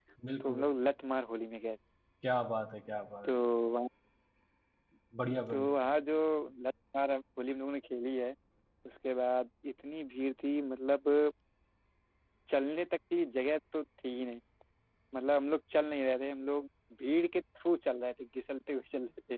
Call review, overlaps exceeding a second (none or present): none